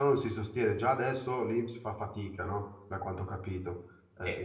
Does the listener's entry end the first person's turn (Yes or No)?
Yes